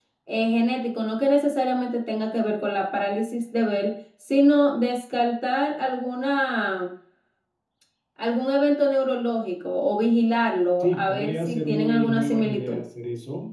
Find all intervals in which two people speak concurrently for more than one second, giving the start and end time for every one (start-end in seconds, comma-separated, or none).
10.8-12.8